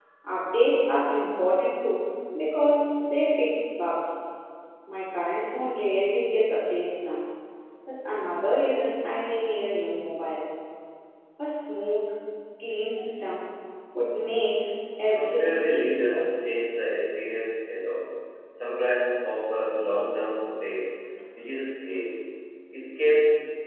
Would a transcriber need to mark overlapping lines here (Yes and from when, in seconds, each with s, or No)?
Yes, from 15.1 s